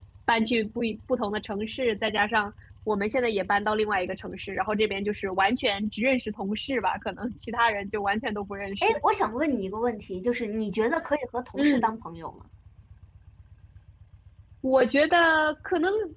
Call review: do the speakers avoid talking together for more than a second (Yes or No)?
Yes